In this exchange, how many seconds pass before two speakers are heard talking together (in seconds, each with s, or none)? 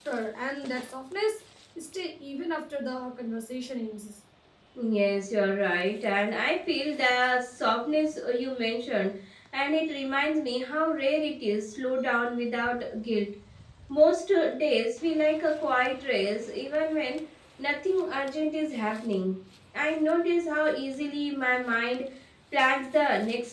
none